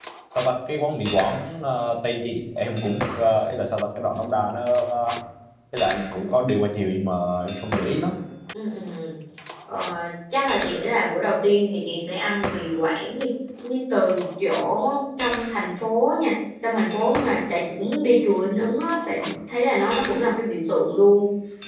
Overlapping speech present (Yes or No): No